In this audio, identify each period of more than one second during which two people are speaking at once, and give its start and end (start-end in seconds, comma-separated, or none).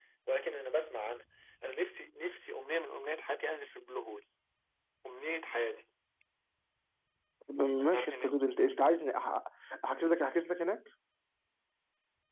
none